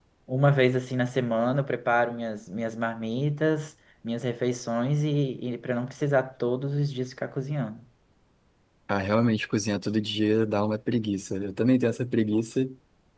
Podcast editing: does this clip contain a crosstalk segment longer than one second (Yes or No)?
No